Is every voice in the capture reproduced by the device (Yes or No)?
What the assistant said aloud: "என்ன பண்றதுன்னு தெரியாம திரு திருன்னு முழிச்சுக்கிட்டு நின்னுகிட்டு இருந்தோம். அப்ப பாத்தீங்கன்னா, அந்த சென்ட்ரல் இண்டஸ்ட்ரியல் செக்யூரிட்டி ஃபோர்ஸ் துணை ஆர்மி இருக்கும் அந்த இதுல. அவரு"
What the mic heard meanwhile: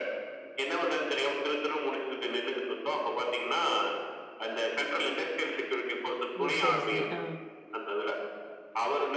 No